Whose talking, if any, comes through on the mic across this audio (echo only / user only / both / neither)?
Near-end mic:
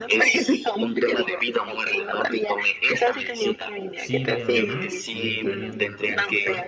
both